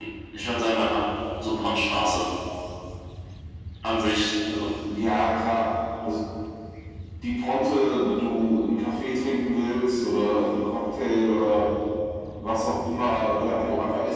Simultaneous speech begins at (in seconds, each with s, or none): none